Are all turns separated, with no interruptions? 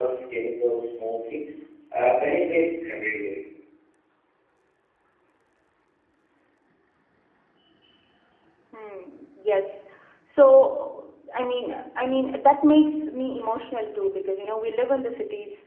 Yes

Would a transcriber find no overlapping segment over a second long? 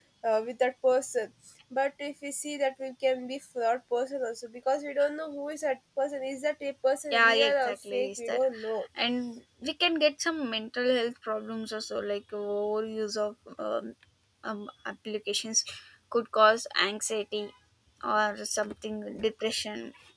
No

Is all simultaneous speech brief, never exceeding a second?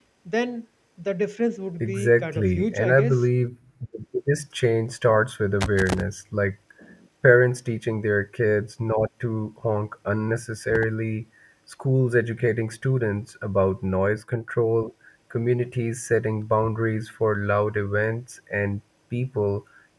No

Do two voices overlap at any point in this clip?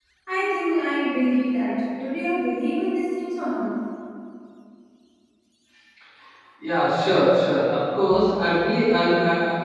No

